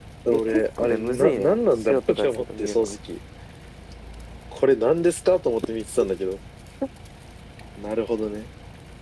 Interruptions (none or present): present